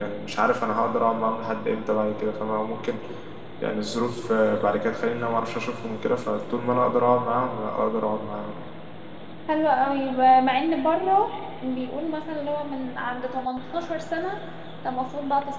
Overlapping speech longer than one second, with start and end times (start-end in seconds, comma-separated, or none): none